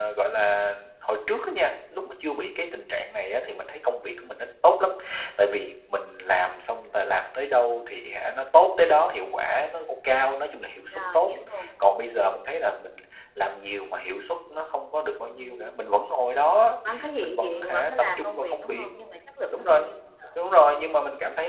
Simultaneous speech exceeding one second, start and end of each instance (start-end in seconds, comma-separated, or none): 17.2-18.9